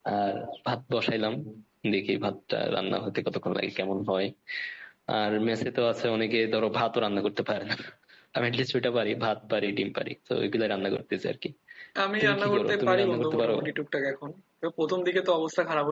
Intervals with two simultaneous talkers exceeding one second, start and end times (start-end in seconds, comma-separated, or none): 12.2-13.5